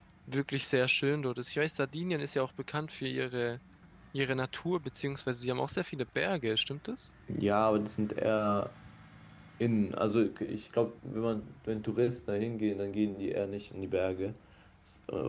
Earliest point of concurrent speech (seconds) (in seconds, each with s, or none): none